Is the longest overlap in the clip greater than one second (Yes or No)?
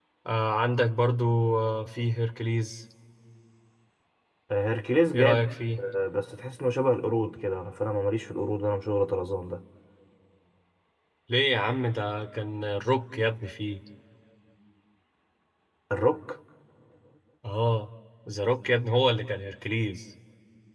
No